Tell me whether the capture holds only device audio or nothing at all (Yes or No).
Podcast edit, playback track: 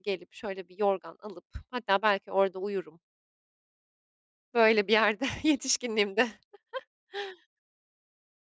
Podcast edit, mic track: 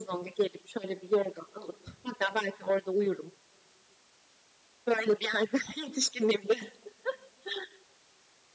Yes